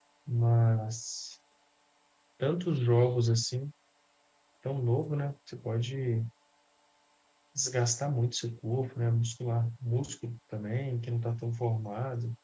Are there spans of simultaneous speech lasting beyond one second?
No

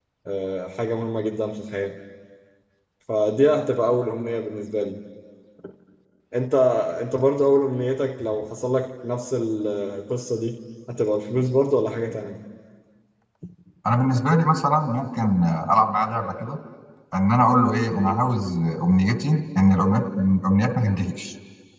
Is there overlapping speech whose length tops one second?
No

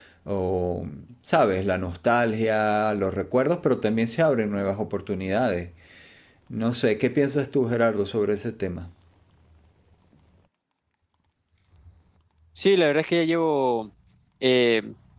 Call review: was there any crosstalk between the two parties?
No

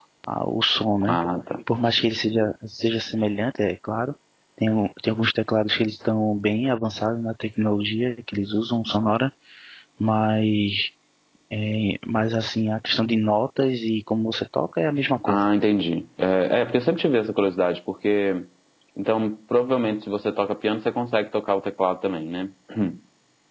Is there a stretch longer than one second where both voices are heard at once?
No

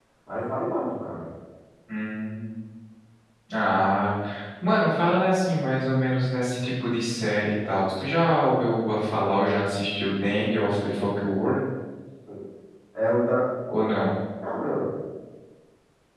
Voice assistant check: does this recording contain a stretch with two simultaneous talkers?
No

